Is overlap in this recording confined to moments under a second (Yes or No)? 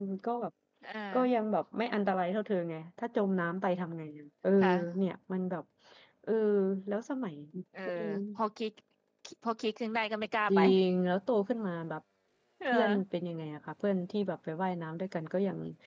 Yes